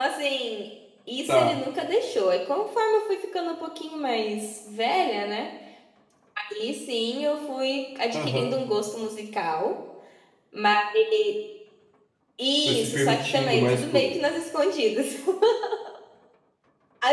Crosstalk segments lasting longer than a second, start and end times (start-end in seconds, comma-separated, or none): 12.6-14.2